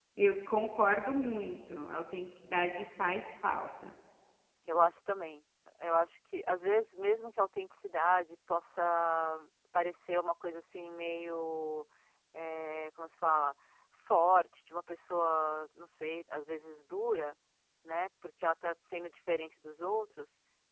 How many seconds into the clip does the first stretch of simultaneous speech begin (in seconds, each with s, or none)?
none